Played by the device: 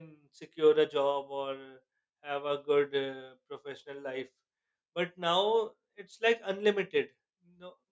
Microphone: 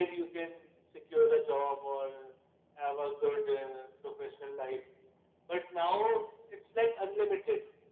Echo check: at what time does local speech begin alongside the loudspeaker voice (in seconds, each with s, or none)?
none